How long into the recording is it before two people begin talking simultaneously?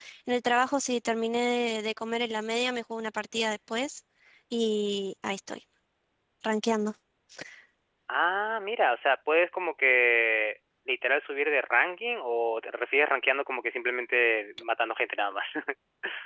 none

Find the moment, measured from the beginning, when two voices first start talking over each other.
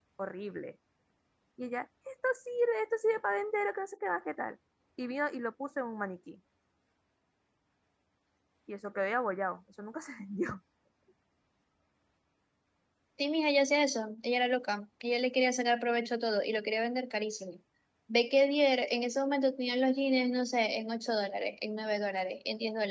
none

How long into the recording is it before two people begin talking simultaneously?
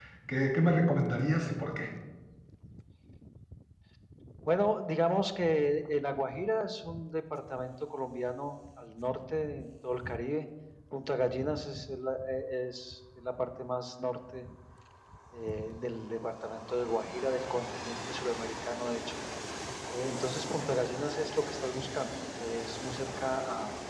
none

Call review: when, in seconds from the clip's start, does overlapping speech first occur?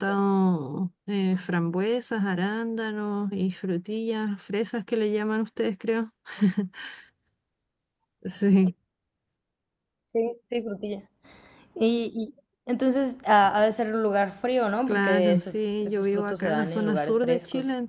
14.9 s

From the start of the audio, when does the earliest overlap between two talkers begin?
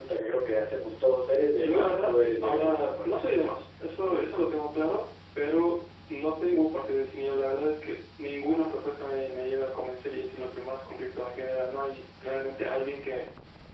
1.6 s

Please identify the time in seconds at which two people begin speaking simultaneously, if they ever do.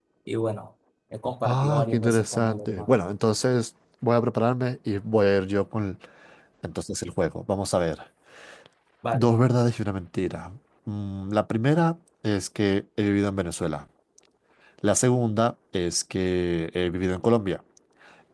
1.4 s

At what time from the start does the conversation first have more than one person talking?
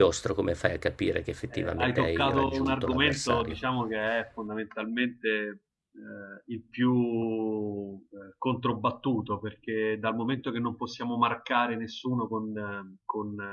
1.5 s

